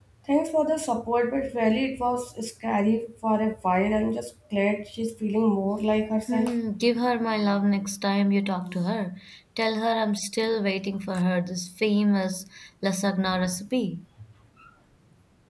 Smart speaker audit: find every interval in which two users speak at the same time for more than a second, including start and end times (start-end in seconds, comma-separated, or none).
none